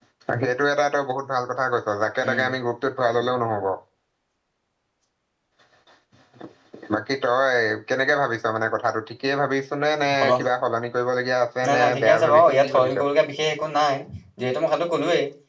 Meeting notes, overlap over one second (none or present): present